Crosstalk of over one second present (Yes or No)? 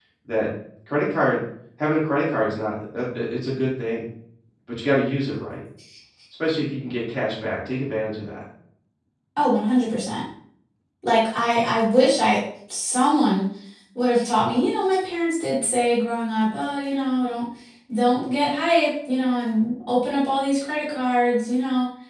No